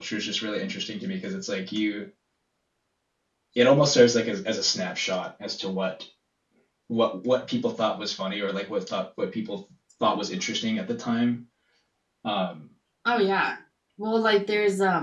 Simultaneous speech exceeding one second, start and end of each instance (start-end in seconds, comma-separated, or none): none